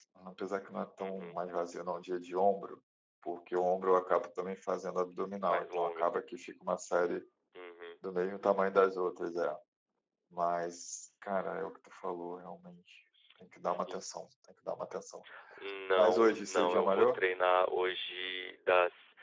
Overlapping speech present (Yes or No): Yes